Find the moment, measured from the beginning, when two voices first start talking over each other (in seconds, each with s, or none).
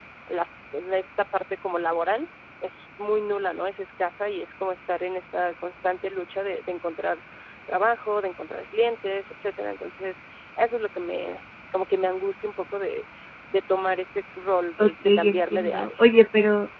14.8 s